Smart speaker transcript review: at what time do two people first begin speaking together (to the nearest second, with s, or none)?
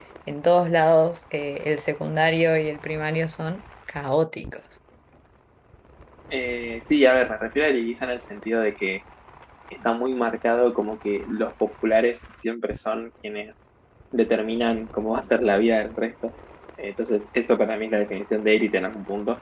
none